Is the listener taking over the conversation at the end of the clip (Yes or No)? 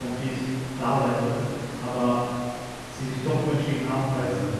No